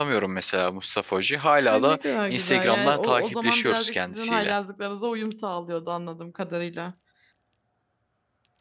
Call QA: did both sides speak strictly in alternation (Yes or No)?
No